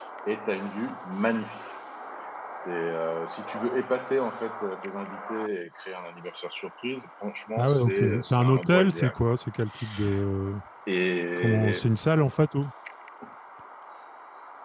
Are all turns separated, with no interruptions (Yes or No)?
No